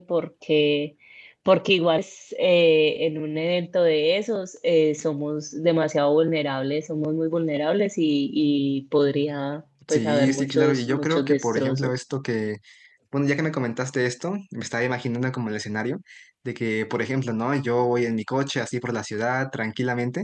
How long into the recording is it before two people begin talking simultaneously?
9.9 s

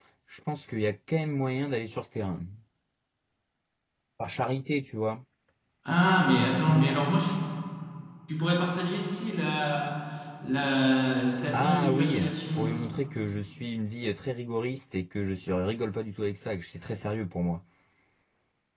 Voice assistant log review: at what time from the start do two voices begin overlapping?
11.5 s

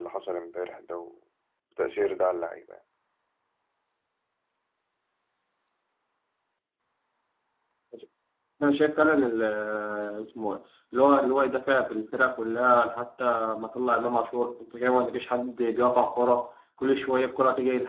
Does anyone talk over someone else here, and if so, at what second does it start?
none

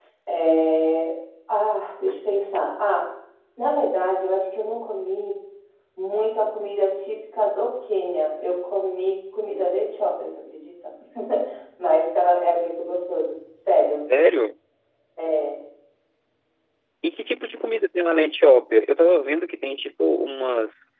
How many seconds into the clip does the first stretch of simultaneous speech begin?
none

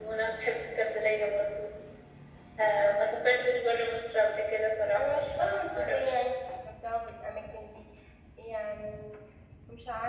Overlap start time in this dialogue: 4.9 s

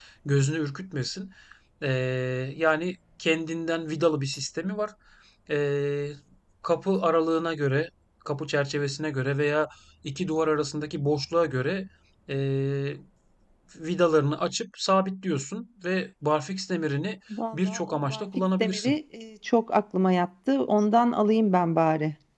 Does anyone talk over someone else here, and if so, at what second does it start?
17.3 s

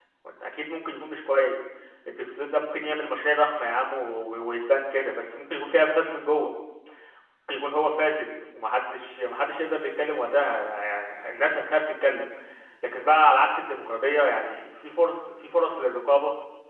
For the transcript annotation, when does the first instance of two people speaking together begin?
none

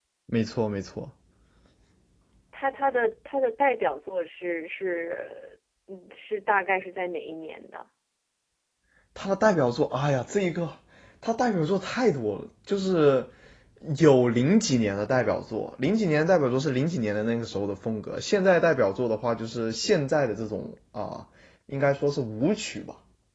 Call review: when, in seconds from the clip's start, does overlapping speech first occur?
none

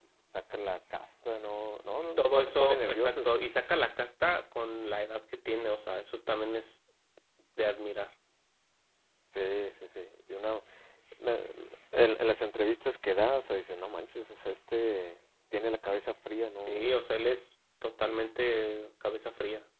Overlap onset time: 2.0 s

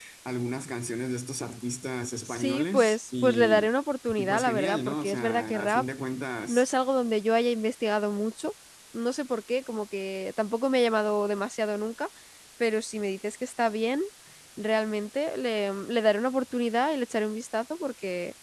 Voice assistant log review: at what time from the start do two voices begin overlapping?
2.2 s

